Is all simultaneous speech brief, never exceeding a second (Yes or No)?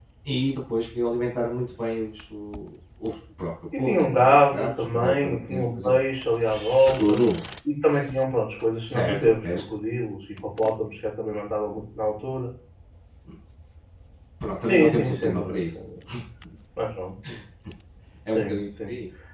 No